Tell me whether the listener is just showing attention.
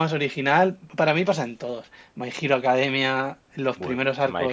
No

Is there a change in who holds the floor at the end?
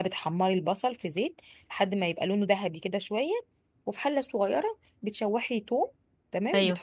No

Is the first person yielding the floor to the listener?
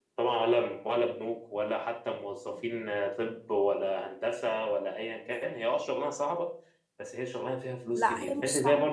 Yes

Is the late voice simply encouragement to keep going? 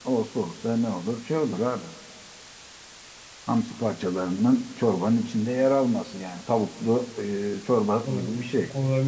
No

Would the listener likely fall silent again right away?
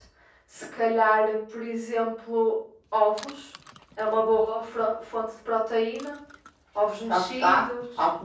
No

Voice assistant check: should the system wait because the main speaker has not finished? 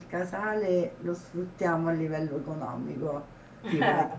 Yes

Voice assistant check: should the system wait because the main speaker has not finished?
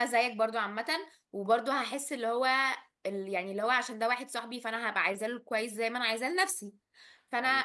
Yes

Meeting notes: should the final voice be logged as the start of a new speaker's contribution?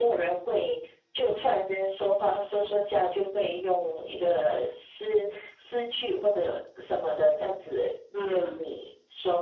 No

